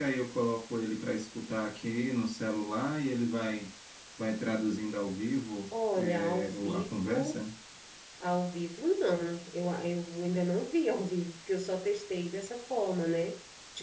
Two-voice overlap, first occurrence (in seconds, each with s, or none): 6.0 s